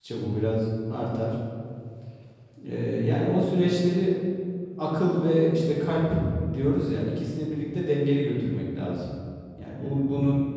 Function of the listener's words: listening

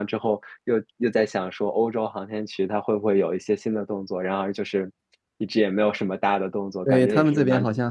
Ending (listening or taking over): taking over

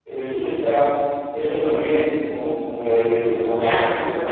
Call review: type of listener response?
taking over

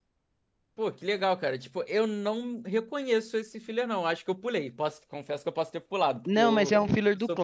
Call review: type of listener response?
taking over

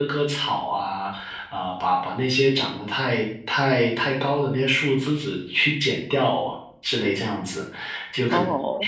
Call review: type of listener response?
listening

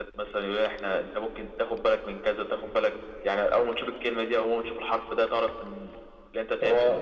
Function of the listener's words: taking over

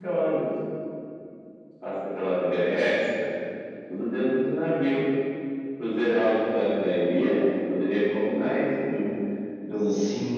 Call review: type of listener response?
taking over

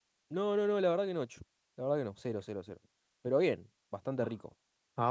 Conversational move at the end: taking over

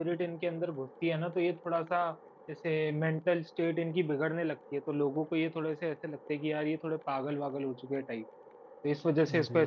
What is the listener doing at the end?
listening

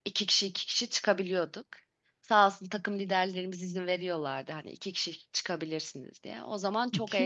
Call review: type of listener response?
taking over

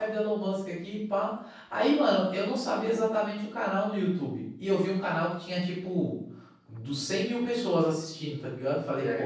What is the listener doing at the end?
listening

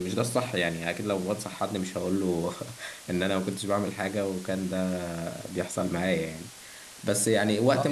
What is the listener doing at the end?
listening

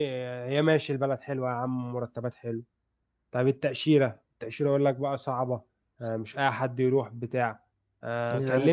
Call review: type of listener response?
listening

